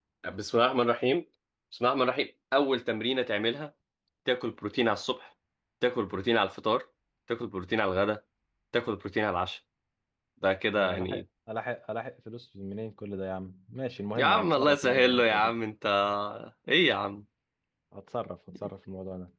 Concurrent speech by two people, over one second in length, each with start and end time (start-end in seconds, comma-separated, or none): 14.2-15.5